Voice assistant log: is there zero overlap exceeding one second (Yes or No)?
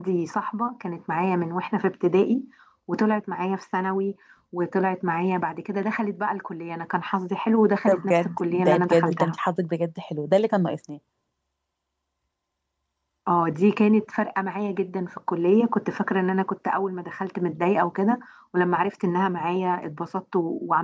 No